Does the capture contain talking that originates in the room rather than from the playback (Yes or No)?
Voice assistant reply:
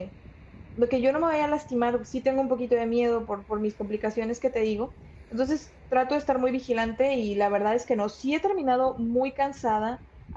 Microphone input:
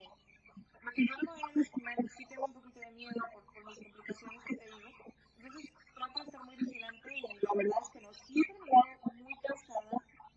No